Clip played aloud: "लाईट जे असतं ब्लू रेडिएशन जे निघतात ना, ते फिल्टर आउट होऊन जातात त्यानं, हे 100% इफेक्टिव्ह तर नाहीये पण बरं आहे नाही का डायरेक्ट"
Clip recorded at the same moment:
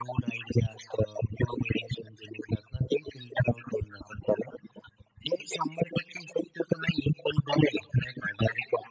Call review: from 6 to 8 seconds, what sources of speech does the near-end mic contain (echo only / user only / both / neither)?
echo only